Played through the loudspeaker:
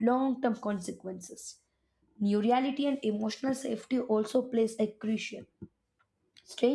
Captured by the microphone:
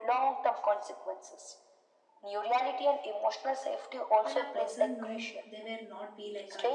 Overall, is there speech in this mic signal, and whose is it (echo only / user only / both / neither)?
both